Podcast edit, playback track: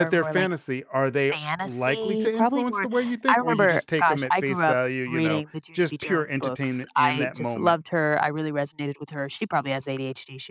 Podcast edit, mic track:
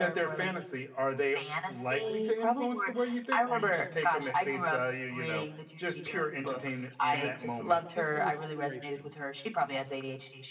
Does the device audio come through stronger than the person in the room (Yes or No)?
Yes